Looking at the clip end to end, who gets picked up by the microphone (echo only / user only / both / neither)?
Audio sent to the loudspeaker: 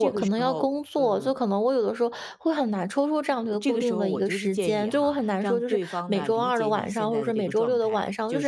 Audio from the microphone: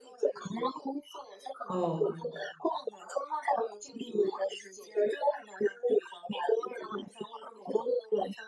both